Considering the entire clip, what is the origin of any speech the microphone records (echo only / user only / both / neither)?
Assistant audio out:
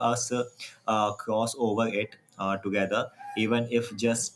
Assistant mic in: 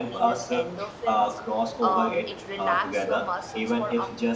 both